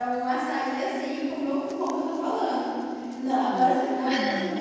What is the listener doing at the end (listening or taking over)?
listening